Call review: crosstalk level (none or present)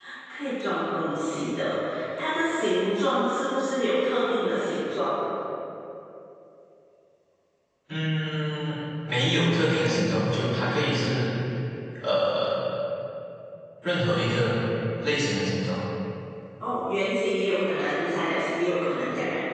none